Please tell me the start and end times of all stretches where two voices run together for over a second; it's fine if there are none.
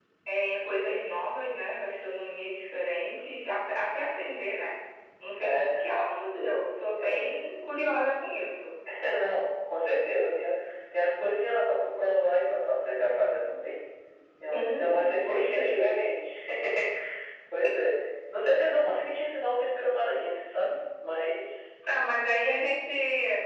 14.5-16.0

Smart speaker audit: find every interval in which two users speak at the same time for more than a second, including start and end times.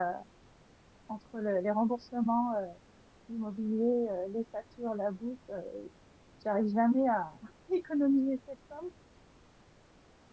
none

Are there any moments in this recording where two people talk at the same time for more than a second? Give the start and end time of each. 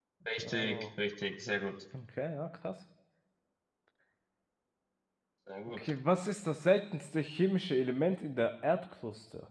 none

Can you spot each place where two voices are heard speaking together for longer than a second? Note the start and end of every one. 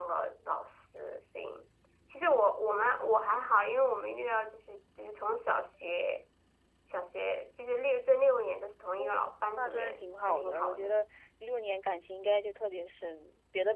9.6-10.9

